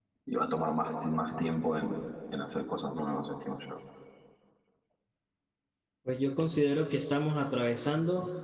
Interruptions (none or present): none